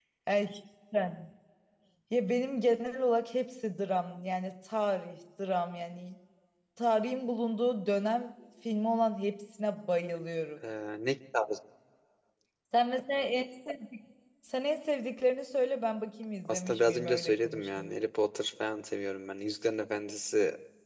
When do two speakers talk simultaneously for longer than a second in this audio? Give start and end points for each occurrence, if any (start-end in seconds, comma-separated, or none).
16.4-17.9